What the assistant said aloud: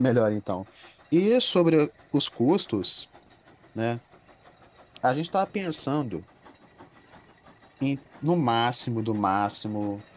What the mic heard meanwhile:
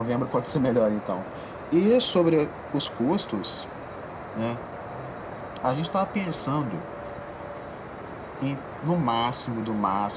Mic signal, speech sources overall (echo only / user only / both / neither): echo only